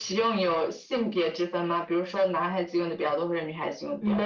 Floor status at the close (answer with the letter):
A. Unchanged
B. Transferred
B